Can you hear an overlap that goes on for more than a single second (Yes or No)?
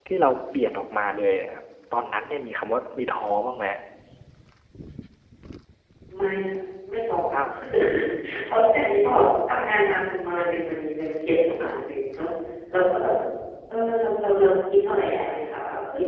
No